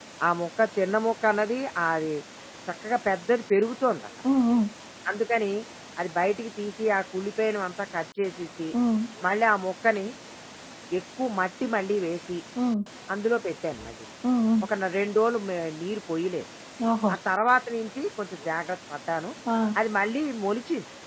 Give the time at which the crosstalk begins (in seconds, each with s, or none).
none